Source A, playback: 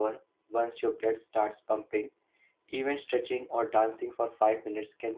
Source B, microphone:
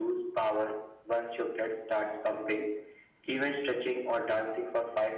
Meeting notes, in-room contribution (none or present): none